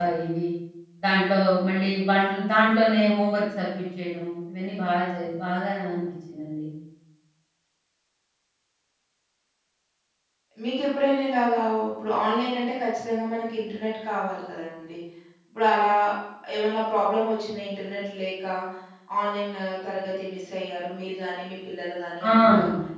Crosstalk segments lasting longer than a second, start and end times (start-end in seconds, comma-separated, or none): none